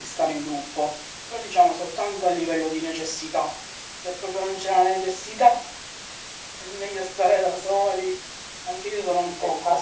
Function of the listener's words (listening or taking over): taking over